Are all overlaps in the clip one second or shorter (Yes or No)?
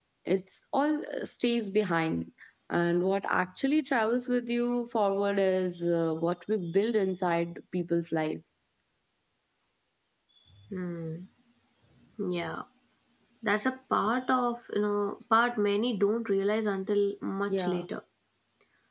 Yes